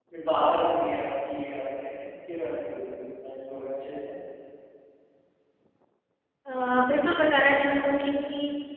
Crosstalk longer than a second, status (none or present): none